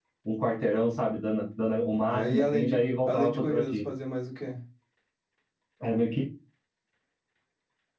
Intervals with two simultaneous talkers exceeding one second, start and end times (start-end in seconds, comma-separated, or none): 2.1-3.8